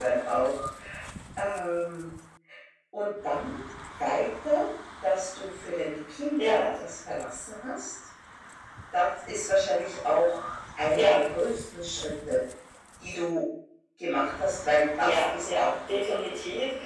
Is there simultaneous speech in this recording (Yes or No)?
Yes